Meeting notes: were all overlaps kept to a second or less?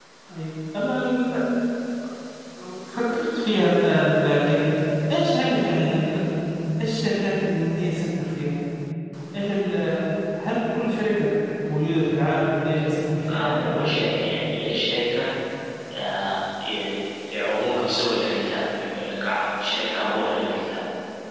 Yes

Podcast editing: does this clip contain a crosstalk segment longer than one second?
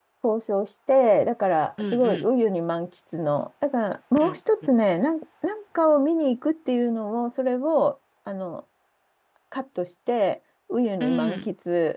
No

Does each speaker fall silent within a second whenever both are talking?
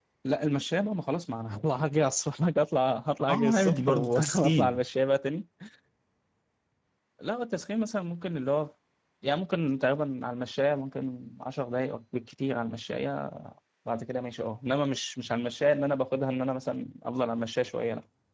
No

